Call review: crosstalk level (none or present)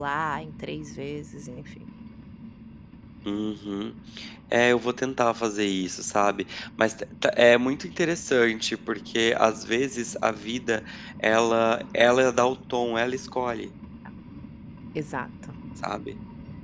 none